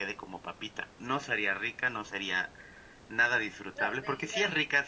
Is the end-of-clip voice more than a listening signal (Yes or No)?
No